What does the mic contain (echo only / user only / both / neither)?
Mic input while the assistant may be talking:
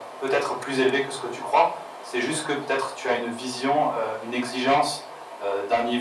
echo only